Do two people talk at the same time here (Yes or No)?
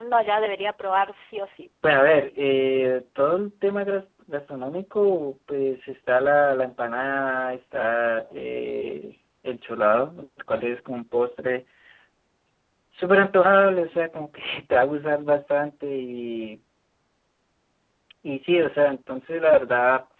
No